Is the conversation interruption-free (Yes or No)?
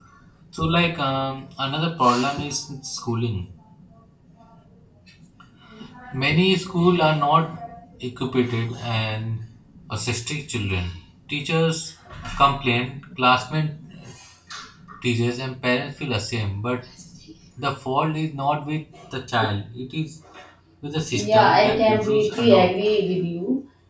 No